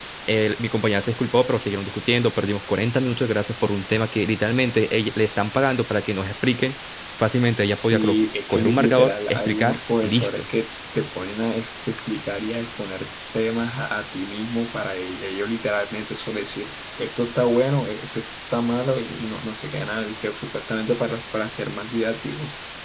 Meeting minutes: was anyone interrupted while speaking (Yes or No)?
Yes